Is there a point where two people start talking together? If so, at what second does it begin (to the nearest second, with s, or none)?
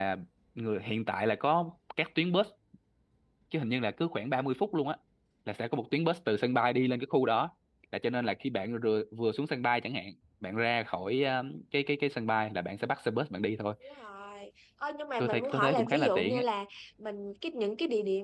15 s